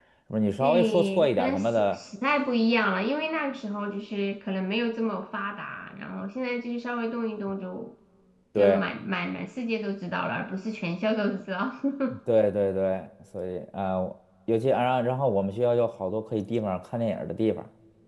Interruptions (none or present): present